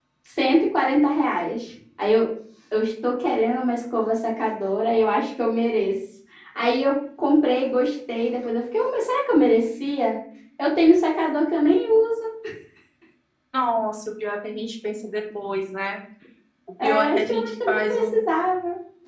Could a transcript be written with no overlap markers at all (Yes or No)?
No